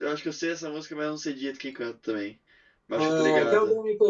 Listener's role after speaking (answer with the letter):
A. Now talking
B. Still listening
A